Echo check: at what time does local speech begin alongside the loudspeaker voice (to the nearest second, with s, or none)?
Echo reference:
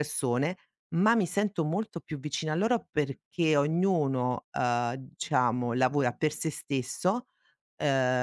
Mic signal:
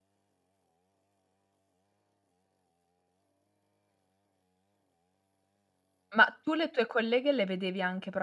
6 s